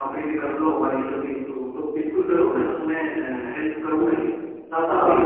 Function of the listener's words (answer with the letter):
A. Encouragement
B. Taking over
A